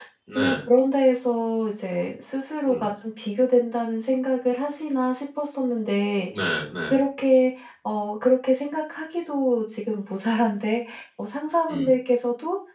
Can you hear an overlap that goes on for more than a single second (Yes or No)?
No